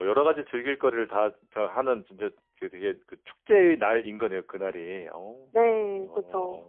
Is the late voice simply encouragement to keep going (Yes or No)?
No